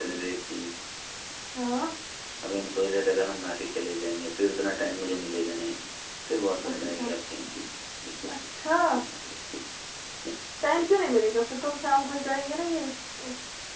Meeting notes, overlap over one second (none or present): none